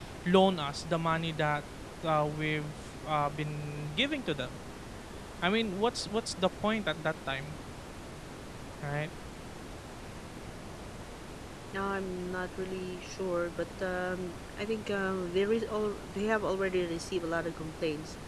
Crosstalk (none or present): none